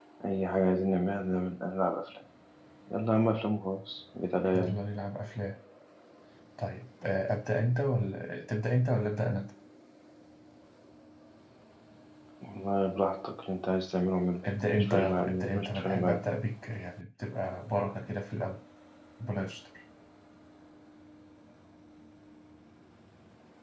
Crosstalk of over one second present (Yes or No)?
Yes